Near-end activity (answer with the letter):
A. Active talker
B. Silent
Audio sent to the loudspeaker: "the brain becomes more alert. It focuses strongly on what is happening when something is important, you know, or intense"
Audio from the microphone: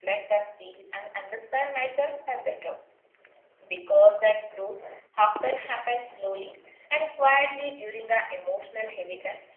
A